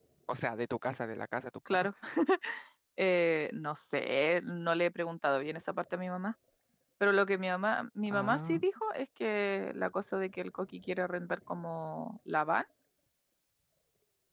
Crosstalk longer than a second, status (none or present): none